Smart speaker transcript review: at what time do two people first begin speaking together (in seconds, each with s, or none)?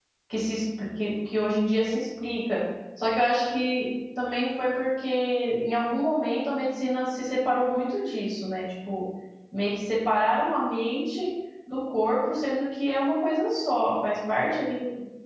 none